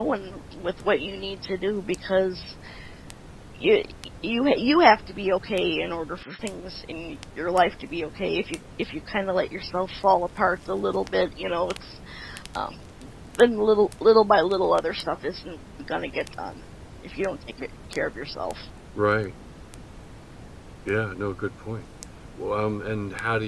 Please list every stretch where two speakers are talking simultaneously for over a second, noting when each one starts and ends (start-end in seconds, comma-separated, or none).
none